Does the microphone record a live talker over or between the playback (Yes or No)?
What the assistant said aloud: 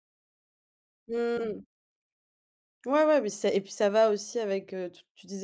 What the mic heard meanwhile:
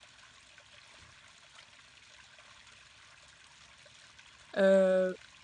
Yes